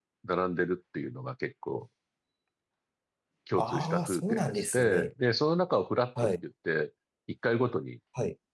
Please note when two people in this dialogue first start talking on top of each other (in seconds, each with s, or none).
3.6 s